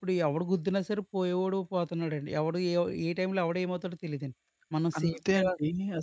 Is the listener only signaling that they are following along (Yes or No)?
No